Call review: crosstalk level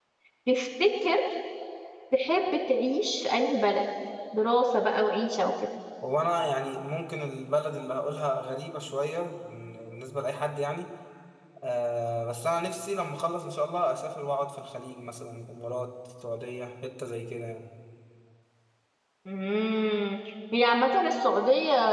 none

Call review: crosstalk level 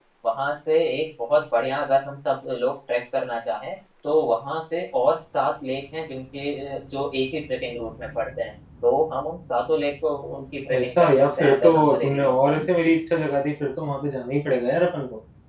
present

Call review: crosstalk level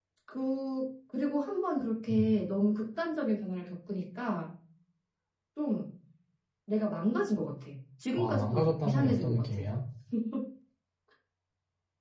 present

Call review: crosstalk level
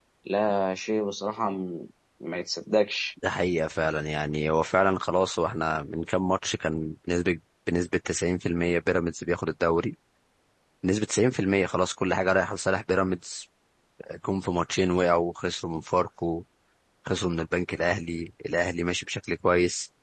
none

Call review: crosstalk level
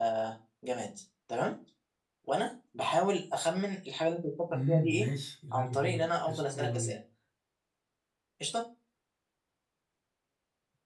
present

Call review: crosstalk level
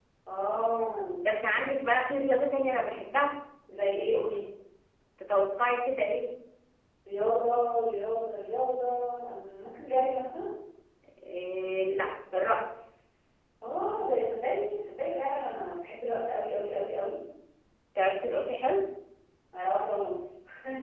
none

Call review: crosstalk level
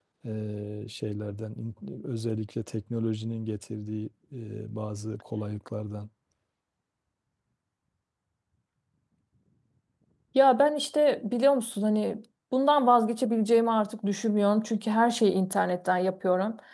none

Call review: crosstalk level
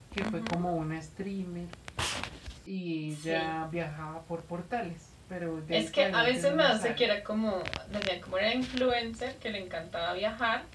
present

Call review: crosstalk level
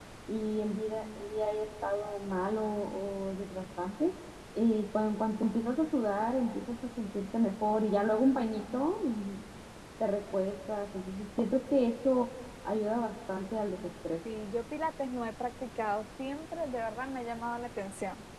none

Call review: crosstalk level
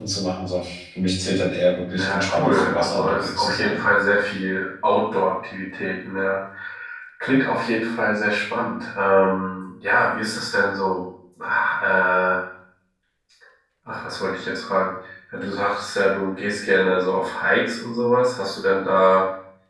present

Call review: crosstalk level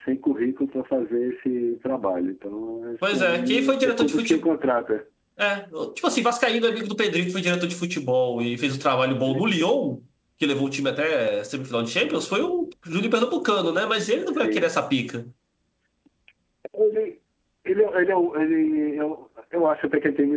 present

